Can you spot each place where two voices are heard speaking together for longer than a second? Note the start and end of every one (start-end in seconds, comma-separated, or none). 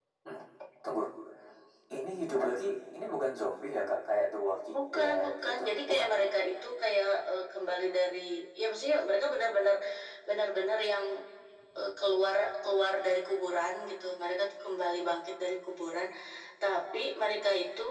4.8-6.1